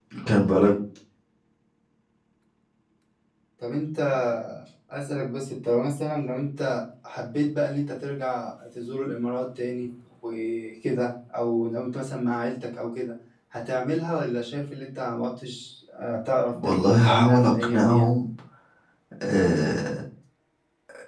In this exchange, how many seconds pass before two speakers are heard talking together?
16.5 s

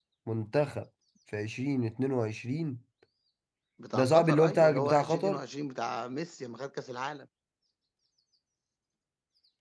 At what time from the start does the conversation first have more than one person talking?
3.9 s

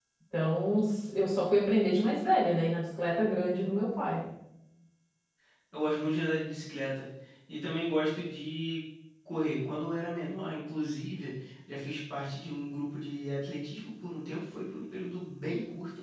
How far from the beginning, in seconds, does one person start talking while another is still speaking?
none

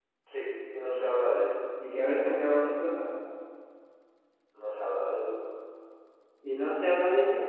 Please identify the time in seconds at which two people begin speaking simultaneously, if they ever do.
none

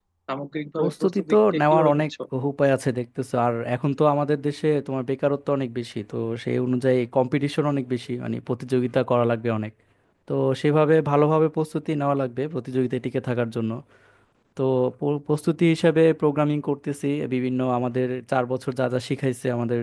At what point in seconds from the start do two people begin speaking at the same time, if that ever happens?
0.8 s

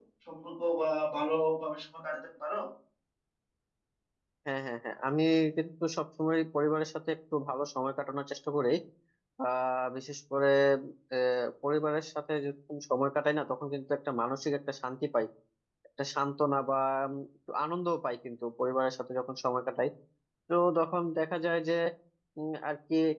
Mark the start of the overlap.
none

